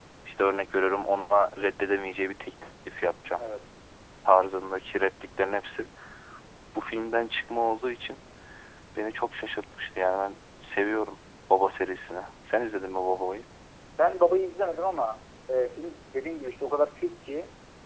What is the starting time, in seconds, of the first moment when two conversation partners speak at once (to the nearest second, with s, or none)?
none